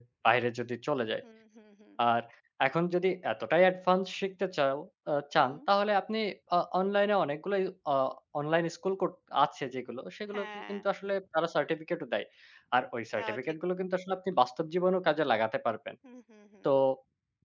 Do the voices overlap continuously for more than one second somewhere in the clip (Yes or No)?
No